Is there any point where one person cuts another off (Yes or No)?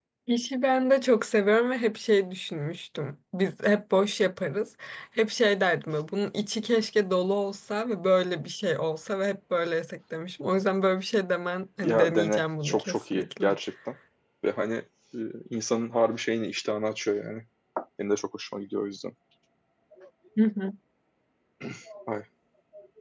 Yes